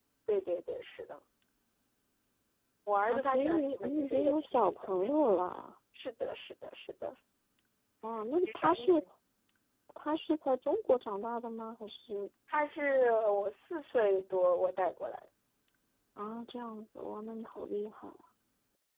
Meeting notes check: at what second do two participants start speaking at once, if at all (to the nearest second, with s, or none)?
3 s